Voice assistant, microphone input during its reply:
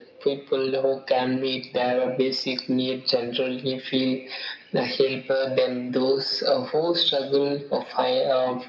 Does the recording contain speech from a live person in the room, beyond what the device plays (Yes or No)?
No